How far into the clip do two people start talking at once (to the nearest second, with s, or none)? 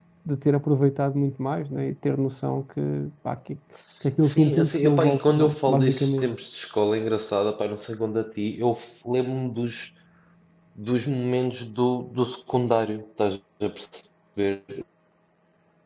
4 s